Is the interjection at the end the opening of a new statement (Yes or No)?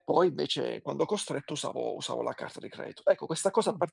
No